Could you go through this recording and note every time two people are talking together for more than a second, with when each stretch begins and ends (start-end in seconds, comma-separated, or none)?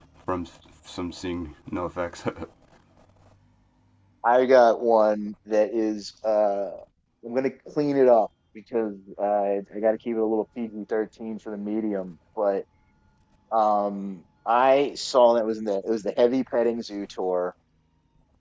none